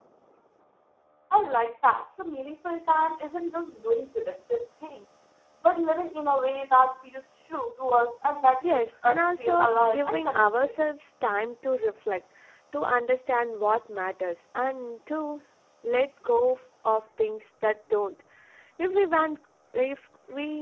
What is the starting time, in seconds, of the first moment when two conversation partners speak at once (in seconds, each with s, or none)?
8.6 s